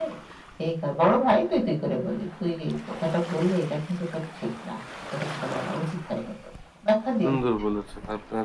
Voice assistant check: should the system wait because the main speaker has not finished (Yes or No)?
No